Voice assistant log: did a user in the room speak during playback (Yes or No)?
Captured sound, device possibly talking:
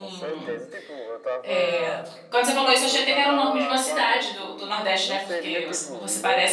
Yes